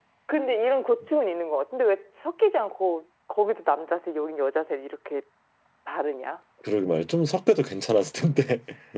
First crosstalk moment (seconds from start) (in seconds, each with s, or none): none